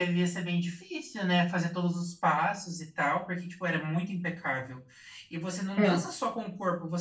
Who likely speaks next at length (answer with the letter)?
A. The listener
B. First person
B